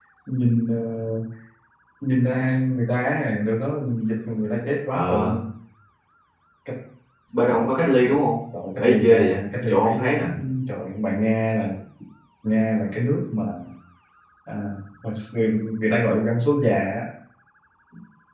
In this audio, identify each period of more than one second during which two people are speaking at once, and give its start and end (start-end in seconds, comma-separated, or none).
8.8-10.3